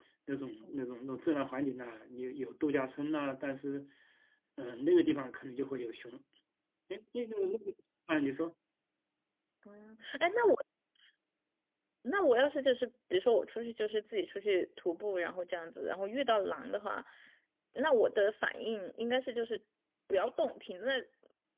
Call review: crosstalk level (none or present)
none